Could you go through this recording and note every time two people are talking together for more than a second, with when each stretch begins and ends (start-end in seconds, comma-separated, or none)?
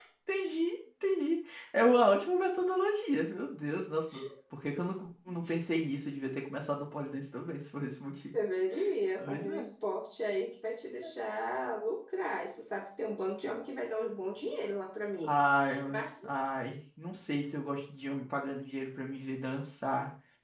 none